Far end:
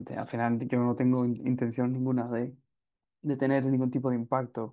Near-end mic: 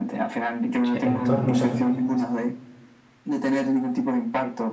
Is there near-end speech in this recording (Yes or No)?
Yes